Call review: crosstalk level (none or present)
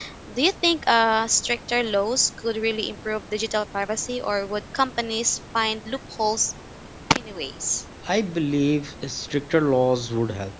none